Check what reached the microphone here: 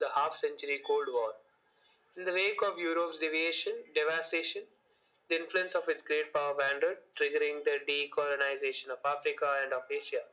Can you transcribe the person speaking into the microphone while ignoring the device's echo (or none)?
none